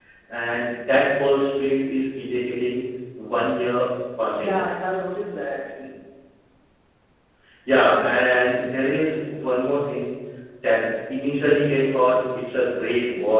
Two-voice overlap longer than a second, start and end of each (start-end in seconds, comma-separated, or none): none